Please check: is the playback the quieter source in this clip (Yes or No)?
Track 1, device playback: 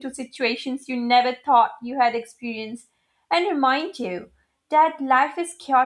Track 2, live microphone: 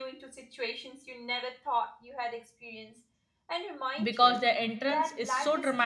Yes